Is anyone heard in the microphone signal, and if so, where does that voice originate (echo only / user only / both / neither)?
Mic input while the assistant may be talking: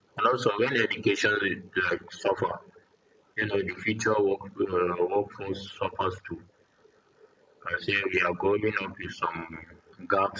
echo only